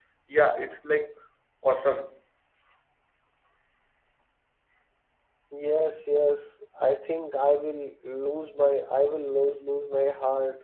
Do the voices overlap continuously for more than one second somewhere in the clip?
No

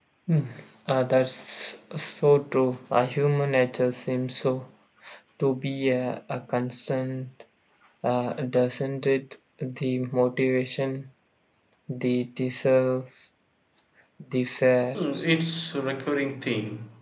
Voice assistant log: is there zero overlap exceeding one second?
Yes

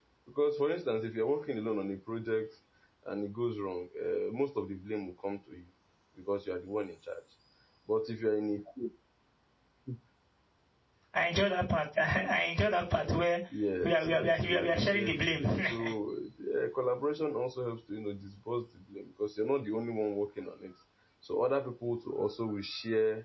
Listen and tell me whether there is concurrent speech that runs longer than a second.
Yes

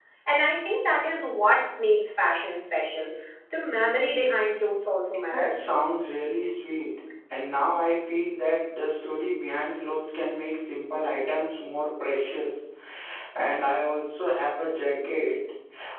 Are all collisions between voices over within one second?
Yes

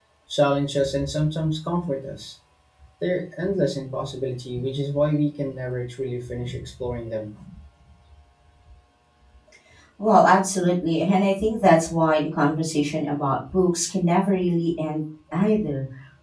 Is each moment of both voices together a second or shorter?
Yes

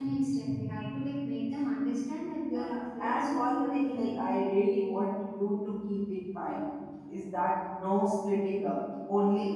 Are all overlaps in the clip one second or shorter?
No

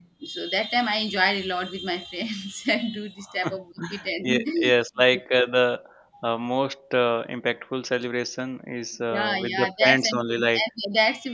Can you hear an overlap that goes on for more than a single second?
Yes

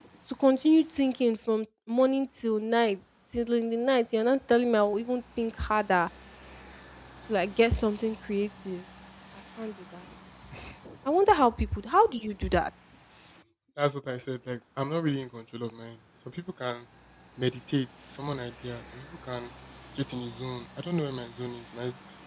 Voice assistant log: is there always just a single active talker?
Yes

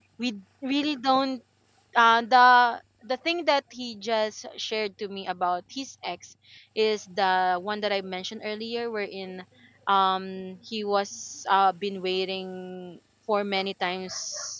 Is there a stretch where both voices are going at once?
No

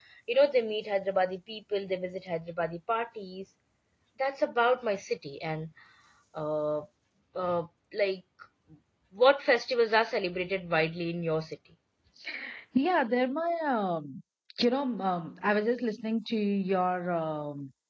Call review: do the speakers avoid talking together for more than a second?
Yes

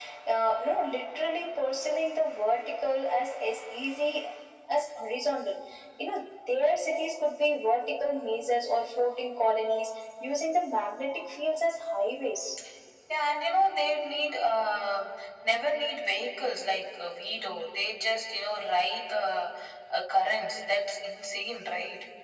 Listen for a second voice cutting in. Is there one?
No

